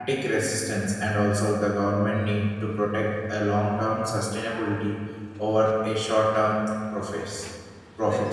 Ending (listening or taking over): taking over